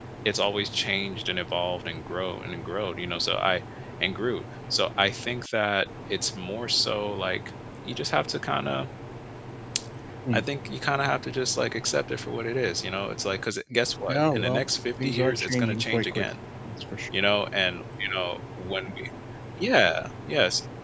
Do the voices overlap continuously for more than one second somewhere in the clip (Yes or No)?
Yes